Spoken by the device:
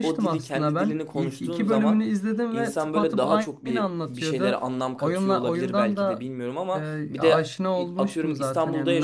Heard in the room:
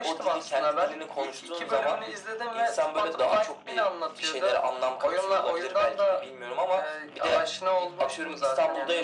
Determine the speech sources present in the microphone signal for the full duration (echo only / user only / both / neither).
echo only